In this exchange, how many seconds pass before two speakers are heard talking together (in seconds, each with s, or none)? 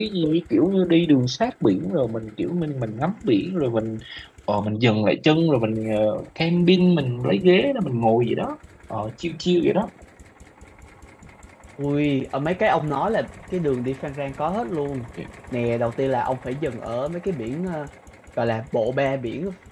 none